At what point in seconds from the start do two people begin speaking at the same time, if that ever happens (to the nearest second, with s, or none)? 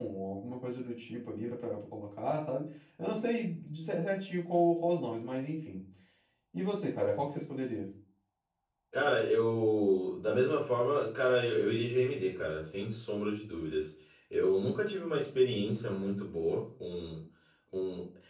none